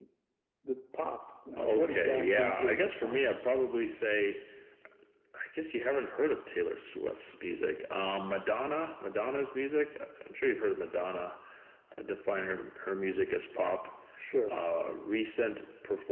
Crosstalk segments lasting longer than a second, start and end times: 1.5-3.2

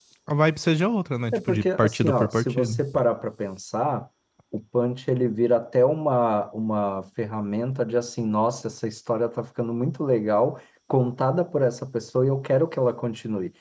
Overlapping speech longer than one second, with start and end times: 1.3-2.8

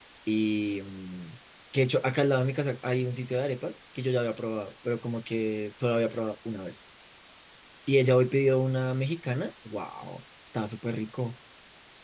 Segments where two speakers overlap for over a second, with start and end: none

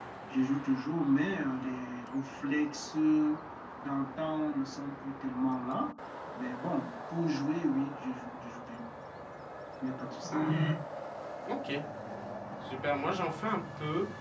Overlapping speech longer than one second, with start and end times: none

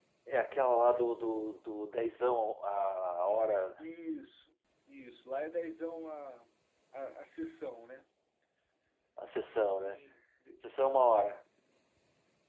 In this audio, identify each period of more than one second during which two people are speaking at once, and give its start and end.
none

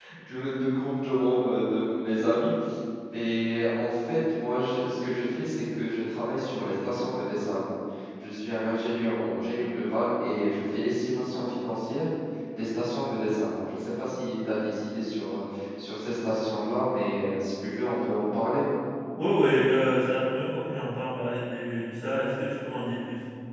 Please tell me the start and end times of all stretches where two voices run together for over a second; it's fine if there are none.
none

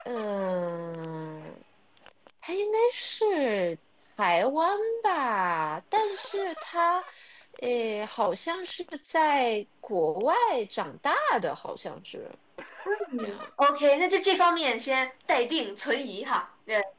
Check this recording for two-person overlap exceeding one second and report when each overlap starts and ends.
none

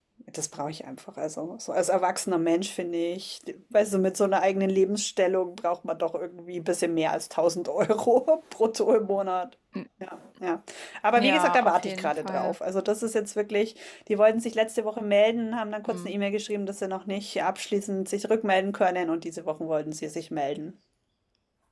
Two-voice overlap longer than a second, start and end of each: 11.2-12.6

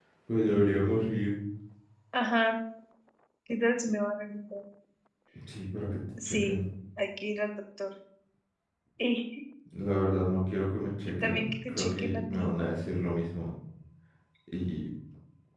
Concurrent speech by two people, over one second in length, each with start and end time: 11.2-12.5

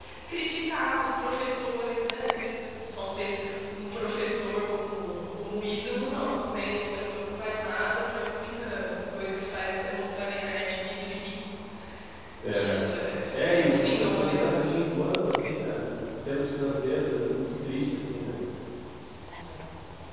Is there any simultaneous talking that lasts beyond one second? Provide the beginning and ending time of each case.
13.3-14.8

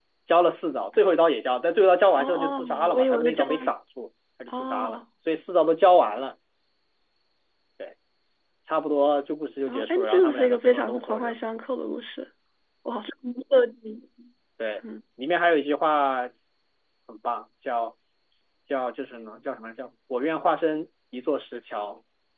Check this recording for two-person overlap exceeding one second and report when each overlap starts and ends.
2.2-3.4, 9.7-11.4

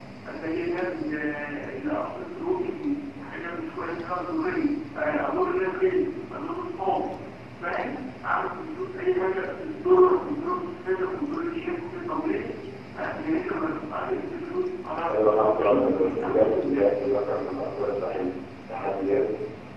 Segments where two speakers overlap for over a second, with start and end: 15.1-16.9

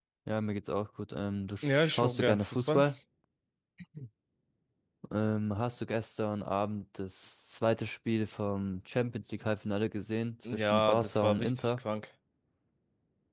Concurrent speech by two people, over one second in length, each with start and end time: 1.6-2.8, 10.5-11.7

